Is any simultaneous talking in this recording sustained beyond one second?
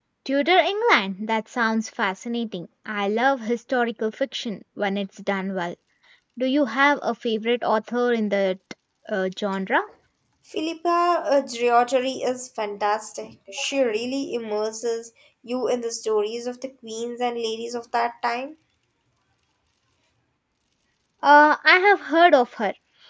No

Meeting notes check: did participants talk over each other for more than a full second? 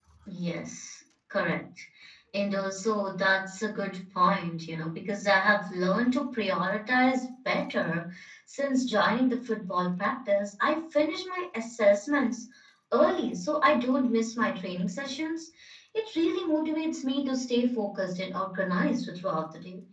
No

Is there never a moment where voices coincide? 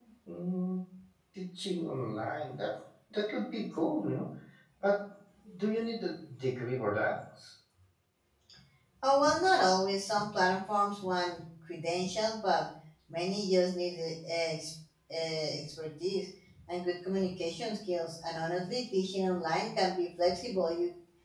Yes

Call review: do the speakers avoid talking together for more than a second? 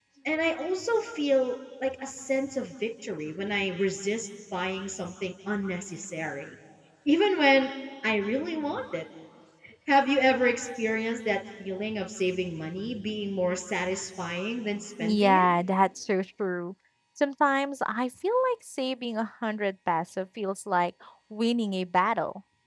Yes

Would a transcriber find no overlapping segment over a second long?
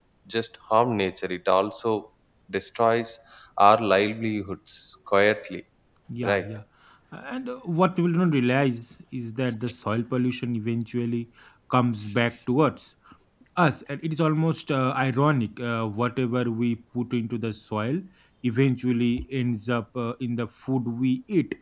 Yes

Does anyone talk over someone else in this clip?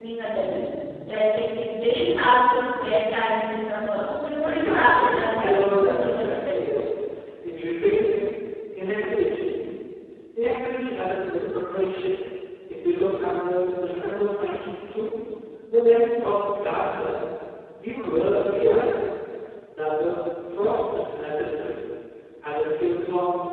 Yes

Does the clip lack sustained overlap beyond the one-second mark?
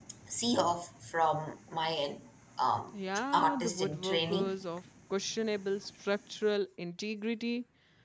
No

